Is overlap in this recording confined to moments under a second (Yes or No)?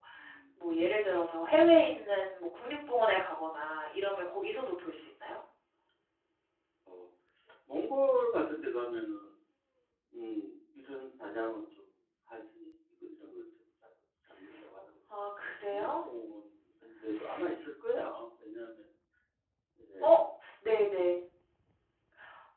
Yes